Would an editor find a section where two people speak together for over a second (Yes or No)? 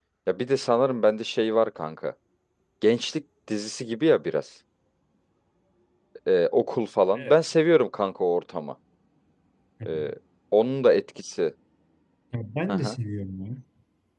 No